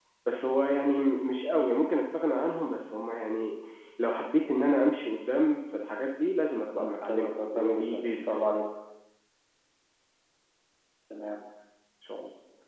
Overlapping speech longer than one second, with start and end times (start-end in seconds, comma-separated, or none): 6.8-8.5